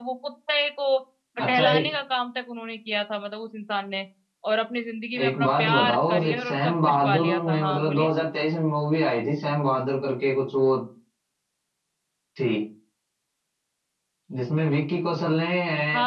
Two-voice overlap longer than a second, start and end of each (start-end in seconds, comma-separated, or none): 5.2-8.1